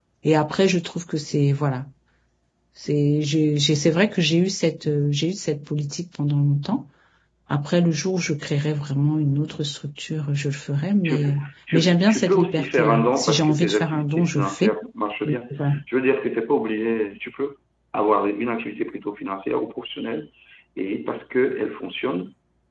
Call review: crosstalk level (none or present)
present